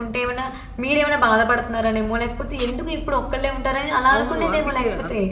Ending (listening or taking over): taking over